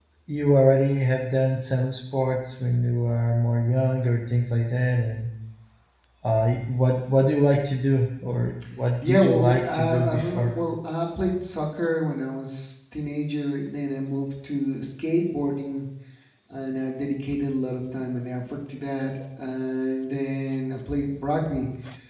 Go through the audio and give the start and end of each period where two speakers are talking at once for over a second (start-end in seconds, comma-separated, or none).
9.0-10.5